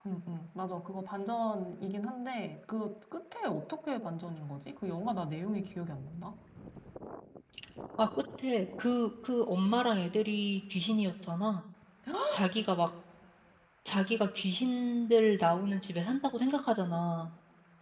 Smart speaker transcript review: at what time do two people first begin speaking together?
none

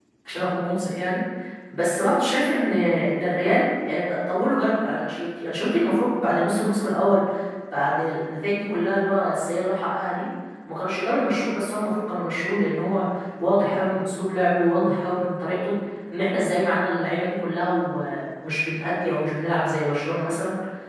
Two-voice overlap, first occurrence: none

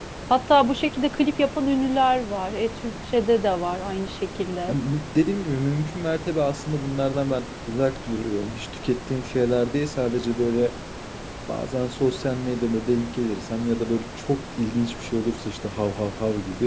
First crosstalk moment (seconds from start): none

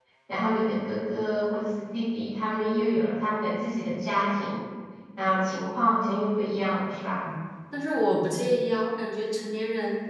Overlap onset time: none

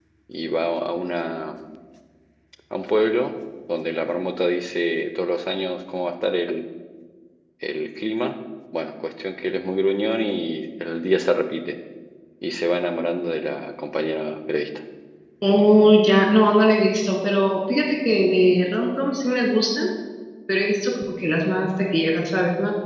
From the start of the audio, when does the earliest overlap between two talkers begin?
none

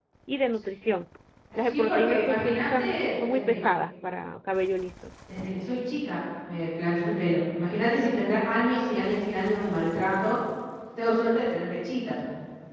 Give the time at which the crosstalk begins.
1.6 s

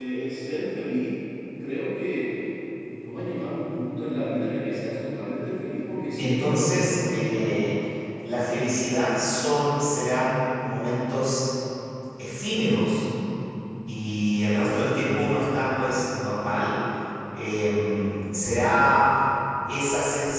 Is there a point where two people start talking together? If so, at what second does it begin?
6.2 s

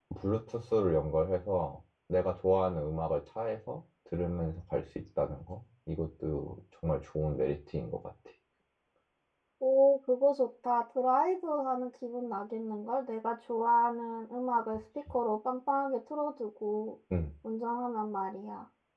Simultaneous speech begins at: none

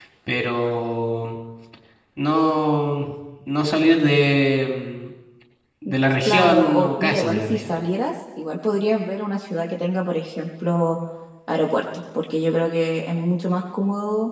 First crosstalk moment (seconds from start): 6.2 s

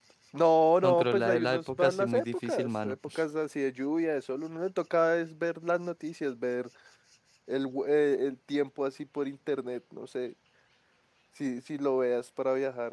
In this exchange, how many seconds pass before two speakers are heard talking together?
0.8 s

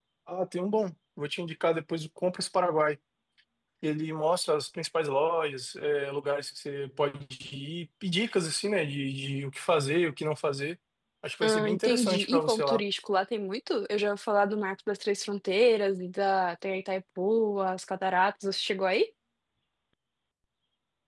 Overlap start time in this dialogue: 11.4 s

